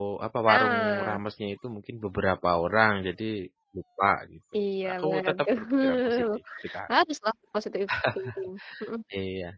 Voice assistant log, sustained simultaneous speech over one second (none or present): present